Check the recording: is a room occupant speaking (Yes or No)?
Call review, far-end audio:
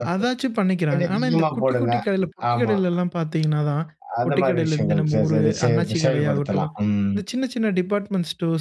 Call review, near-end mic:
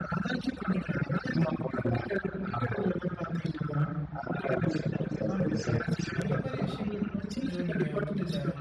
Yes